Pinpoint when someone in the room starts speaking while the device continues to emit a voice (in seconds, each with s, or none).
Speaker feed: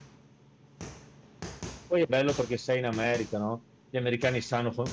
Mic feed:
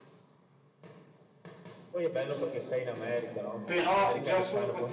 3.6 s